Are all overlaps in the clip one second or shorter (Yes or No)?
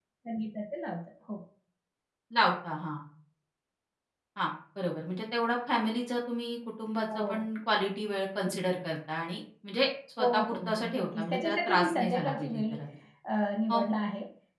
No